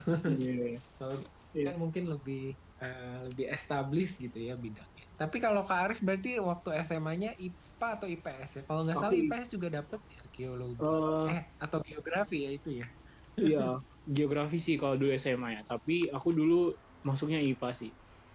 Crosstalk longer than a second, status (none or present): none